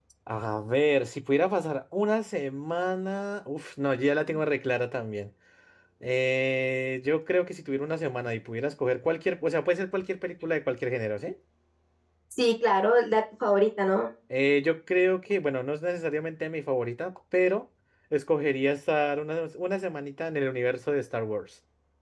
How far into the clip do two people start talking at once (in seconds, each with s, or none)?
none